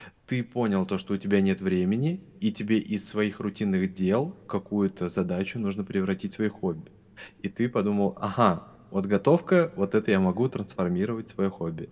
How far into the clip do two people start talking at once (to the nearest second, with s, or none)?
none